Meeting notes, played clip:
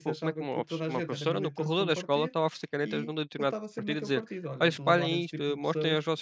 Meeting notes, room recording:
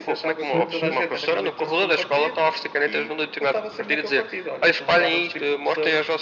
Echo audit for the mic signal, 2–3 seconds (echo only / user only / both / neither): echo only